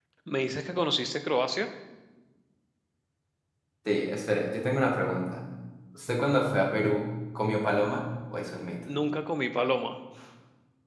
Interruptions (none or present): none